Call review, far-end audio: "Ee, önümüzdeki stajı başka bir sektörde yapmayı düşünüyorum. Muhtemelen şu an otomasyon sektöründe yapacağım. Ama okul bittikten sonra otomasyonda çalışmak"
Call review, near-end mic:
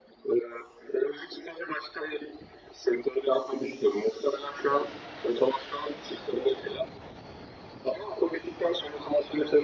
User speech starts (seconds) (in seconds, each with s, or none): none